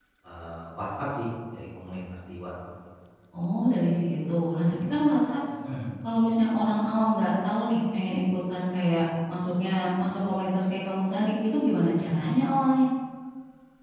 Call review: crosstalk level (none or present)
none